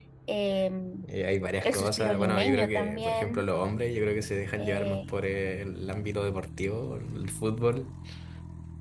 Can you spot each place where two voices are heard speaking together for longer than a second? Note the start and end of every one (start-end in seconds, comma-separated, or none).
1.6-3.4